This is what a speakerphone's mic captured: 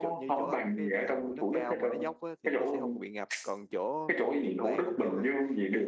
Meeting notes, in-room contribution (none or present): present